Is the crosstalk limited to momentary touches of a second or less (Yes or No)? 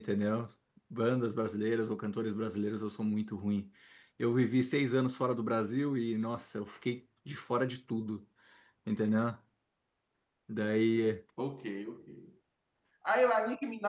Yes